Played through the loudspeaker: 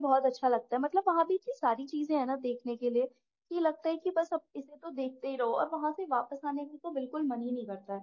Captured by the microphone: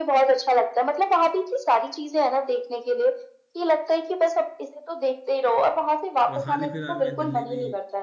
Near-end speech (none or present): present